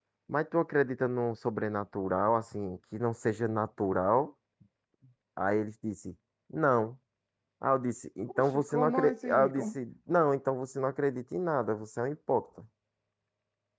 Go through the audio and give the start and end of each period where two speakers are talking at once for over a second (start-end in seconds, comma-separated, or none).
8.3-9.8